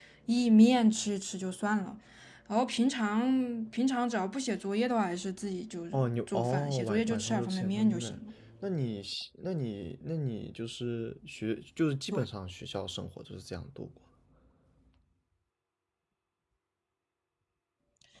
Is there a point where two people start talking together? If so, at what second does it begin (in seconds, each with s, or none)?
5.9 s